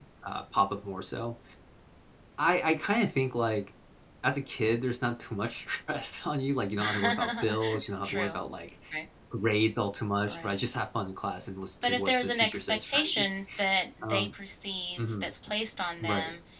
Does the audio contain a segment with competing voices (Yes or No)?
Yes